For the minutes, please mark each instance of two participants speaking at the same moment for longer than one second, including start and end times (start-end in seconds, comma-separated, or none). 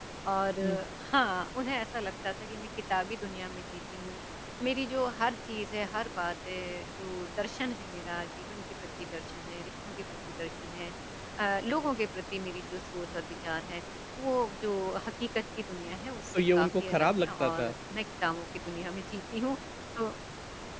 16.3-17.7